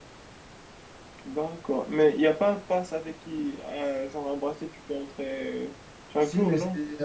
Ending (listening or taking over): taking over